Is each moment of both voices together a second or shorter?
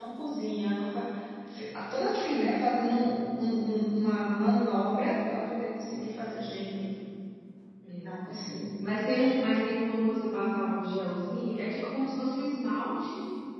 Yes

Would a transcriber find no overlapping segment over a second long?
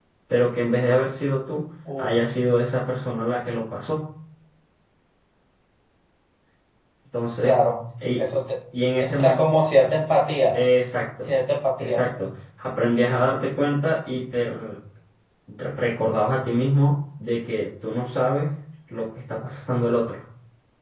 Yes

